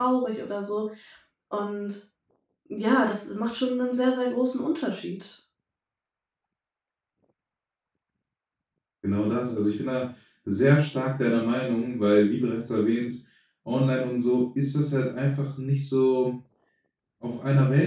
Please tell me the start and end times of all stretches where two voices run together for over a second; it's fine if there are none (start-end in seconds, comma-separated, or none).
none